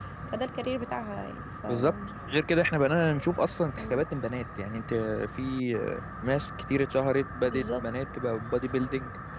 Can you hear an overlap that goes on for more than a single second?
No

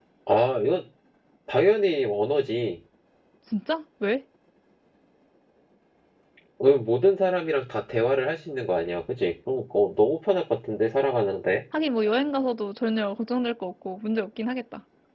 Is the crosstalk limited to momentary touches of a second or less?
Yes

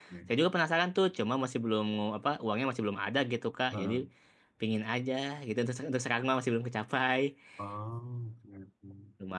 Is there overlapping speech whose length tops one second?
No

